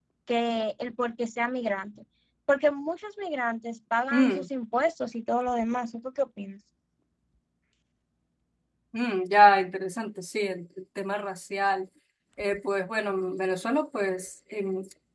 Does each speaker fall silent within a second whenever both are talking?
Yes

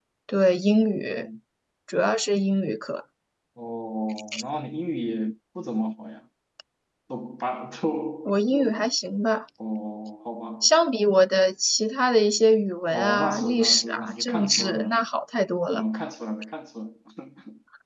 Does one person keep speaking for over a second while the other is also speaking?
Yes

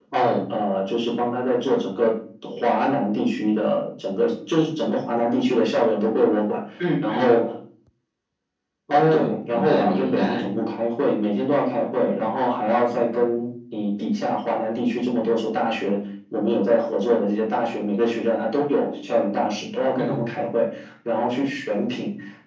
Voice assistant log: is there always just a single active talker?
No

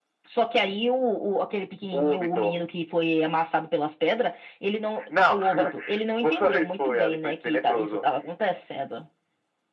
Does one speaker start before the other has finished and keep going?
Yes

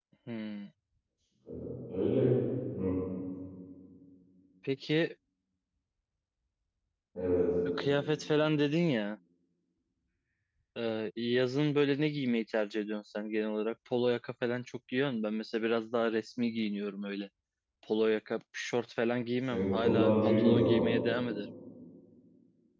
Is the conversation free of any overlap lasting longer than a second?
No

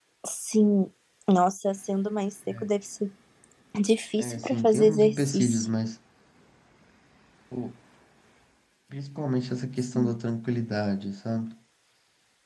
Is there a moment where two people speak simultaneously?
Yes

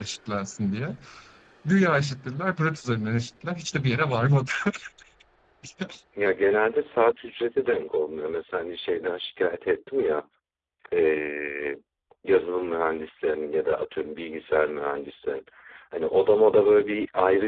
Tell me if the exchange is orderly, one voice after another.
Yes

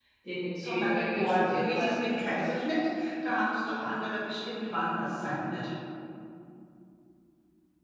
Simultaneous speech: Yes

